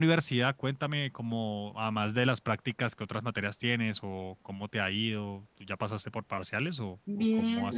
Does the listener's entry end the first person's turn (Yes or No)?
Yes